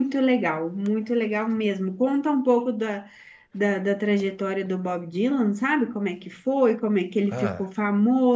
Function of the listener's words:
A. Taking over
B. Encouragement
B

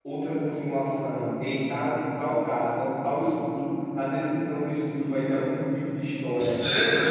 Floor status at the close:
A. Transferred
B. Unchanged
A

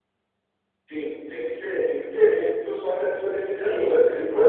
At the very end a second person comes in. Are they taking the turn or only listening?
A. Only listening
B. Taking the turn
B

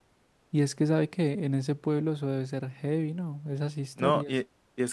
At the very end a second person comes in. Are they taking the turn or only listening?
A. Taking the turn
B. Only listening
A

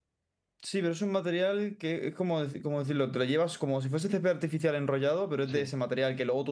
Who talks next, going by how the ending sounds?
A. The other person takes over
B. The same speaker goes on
B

